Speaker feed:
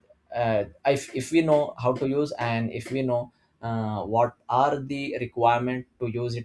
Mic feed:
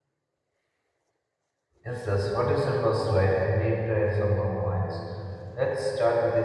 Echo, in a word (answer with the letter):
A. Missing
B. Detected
A